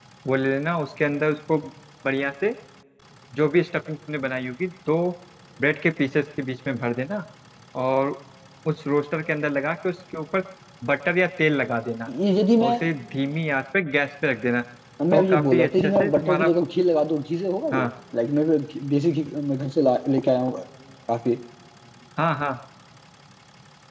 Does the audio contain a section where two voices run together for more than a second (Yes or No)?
Yes